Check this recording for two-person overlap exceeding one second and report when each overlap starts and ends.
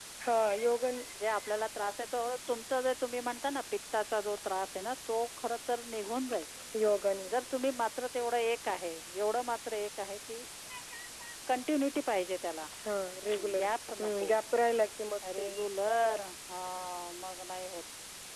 none

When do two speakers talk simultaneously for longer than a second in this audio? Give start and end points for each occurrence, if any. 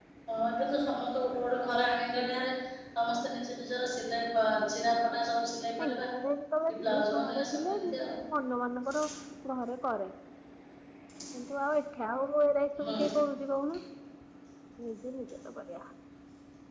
6.7-8.1

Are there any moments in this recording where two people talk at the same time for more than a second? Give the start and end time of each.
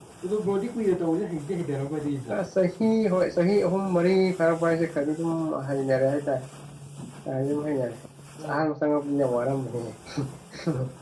none

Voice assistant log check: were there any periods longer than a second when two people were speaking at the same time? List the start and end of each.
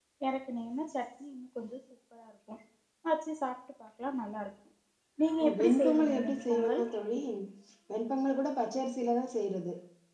5.6-6.8

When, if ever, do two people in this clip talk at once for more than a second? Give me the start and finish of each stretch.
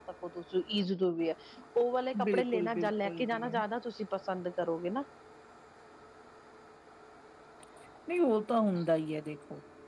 2.2-3.4

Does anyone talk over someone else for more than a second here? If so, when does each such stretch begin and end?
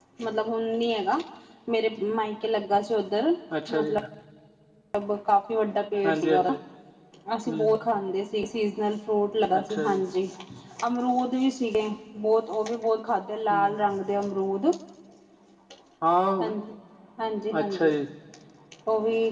none

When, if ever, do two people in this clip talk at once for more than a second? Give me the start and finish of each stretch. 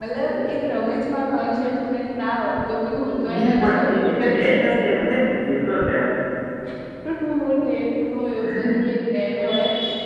3.3-4.6

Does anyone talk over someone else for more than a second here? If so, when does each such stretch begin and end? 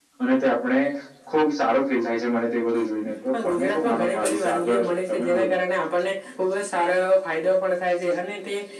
3.4-5.5

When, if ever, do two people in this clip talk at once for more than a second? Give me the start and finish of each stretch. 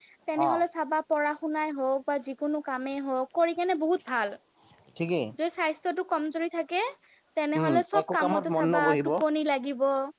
7.6-9.0

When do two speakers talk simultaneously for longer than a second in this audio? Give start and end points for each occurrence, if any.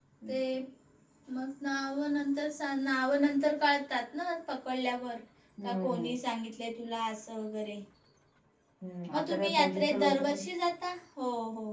9.1-10.4

